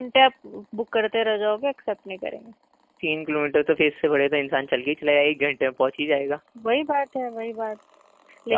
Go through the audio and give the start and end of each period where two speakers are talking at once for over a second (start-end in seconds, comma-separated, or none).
none